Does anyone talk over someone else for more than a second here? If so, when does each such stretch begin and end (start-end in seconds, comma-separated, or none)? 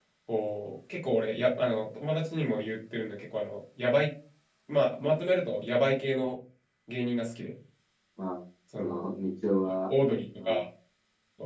none